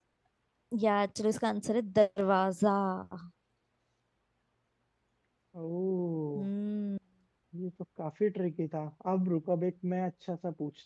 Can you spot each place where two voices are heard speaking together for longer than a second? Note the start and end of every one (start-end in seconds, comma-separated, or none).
none